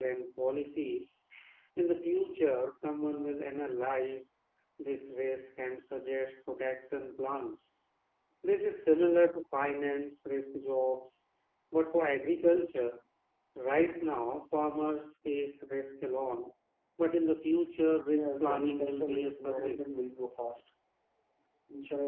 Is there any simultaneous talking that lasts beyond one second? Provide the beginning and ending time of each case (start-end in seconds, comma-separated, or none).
18.1-19.9